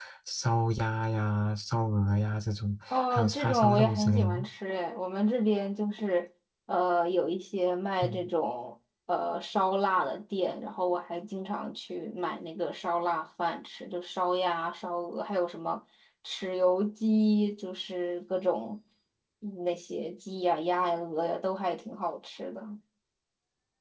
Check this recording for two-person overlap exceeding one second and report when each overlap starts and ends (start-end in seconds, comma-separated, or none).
2.9-4.5